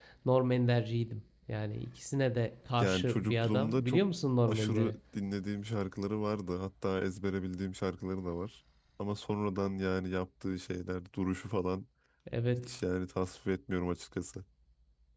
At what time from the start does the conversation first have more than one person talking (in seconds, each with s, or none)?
2.8 s